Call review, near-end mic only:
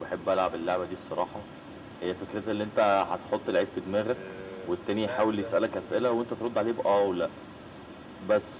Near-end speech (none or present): present